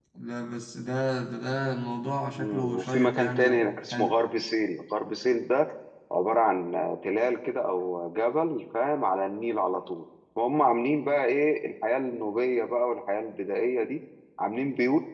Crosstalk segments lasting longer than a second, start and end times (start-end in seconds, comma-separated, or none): 2.4-4.1